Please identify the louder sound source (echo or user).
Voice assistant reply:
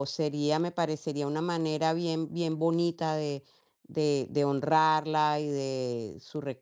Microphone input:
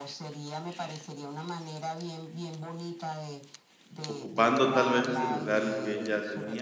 user